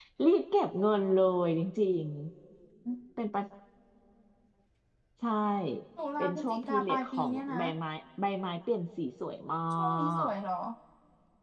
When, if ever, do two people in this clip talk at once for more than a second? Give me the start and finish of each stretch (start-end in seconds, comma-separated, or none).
6.2-7.6